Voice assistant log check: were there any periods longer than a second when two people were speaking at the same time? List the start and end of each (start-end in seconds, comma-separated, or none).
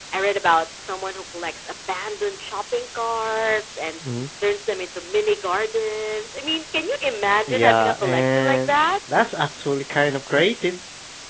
7.5-8.8